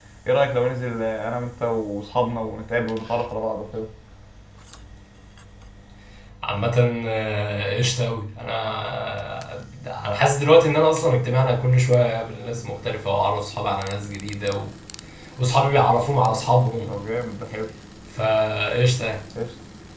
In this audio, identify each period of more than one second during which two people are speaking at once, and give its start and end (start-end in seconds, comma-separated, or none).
none